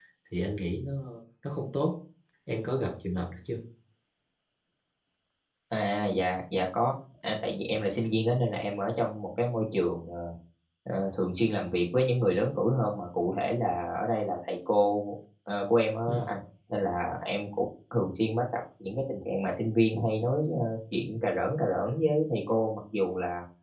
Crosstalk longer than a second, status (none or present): none